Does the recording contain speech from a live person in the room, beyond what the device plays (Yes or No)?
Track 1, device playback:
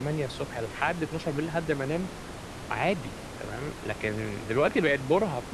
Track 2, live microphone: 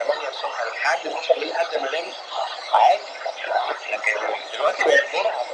No